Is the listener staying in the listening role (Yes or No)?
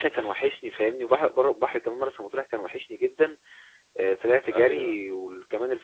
Yes